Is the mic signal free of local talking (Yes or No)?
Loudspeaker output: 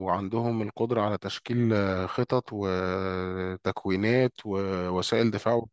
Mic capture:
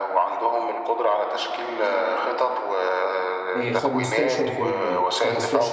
No